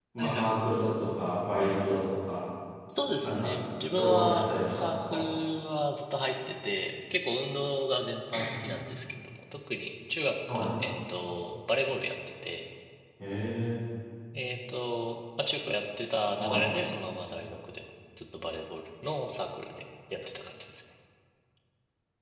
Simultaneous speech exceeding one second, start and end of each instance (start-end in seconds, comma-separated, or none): 4.0-5.2